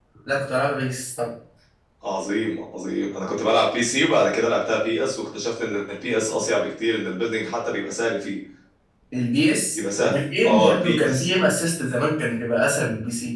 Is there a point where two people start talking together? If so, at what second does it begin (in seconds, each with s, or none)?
9.8 s